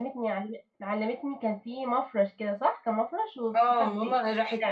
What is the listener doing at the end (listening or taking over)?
taking over